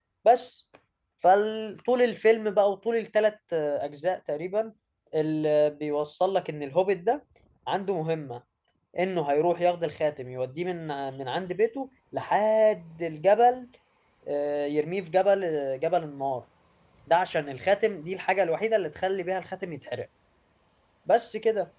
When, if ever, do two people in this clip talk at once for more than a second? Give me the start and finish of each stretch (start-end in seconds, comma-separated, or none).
none